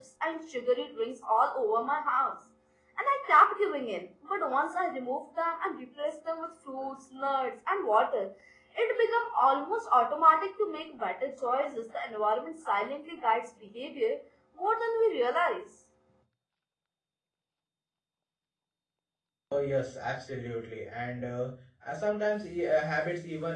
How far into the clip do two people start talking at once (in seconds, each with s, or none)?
none